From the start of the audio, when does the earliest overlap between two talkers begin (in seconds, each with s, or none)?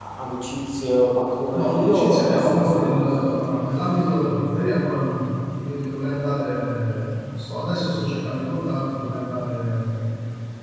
1.5 s